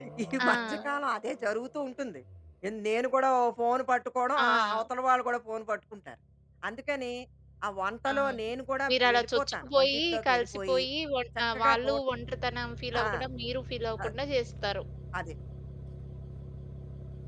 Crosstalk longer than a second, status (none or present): present